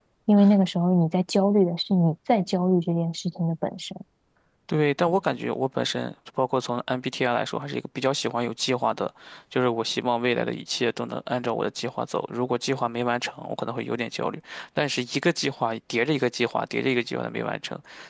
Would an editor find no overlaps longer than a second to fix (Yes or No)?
Yes